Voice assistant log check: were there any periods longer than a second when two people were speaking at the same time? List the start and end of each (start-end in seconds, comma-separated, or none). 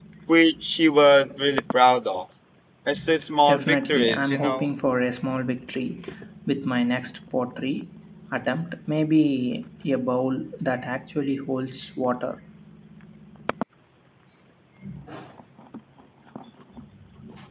3.5-4.7